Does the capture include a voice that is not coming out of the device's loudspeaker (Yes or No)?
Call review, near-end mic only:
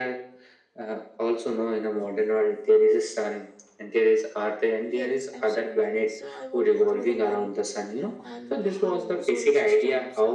Yes